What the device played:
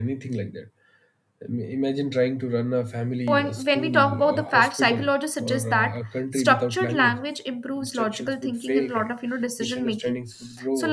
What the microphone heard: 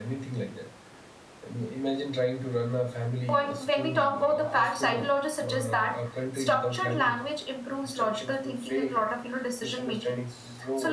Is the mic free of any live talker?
Yes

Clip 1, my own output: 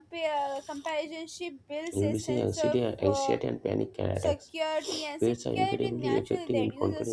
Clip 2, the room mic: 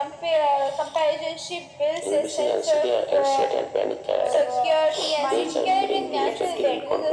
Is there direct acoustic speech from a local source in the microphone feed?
Yes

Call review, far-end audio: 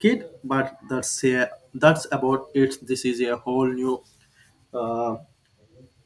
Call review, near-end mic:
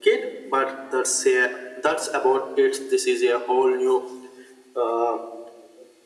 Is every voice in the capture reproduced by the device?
Yes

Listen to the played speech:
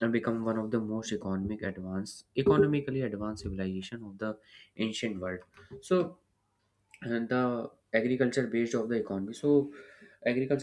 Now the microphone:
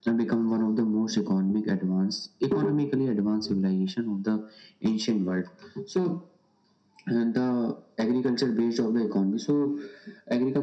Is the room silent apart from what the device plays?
Yes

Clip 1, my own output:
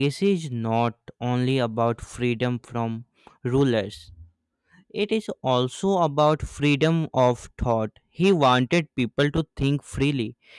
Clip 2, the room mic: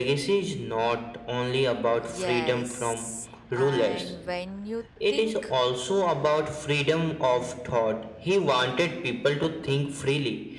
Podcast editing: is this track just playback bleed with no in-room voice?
No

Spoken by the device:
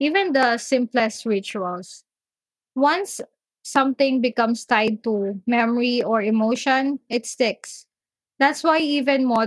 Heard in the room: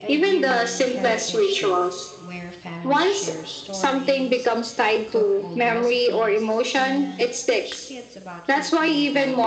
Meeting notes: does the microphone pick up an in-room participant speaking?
Yes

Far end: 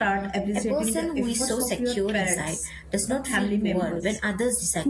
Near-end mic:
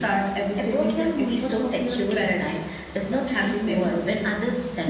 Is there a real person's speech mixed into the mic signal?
No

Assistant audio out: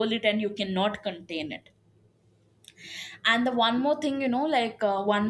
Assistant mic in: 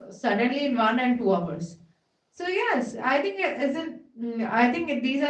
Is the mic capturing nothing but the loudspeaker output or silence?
No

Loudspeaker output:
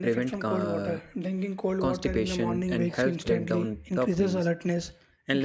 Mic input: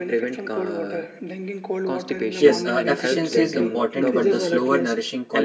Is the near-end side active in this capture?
Yes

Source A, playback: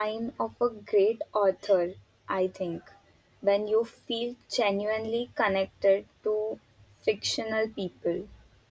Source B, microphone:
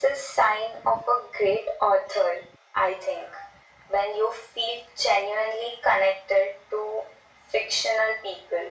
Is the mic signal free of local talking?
Yes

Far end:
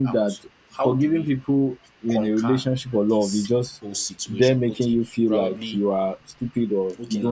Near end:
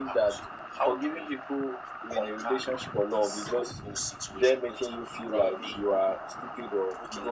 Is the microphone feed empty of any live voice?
Yes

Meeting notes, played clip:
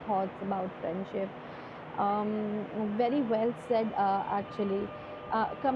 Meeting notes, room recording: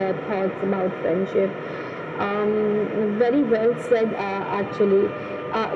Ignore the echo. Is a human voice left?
No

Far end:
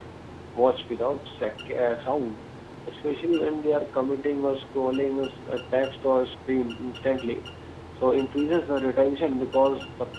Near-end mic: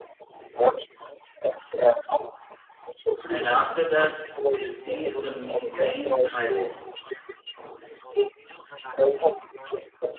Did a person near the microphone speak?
Yes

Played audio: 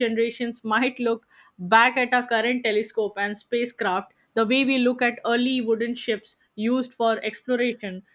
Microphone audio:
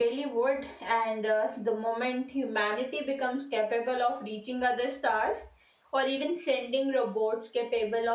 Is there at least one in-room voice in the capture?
Yes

